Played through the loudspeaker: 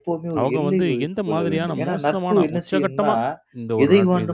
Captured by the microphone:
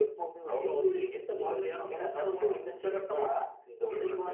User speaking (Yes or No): Yes